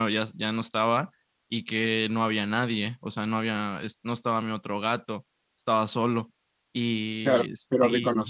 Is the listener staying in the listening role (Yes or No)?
No